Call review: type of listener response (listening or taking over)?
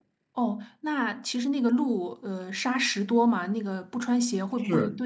taking over